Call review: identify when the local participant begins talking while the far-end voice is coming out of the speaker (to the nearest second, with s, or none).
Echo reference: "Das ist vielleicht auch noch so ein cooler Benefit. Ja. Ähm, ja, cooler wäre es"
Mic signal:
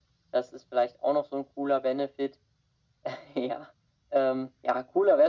none